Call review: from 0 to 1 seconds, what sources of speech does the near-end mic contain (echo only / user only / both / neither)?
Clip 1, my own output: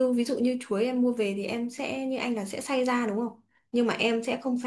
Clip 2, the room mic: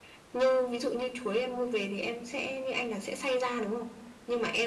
echo only